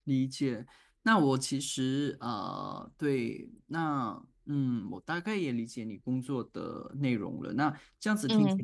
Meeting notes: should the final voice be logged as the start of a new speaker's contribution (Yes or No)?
No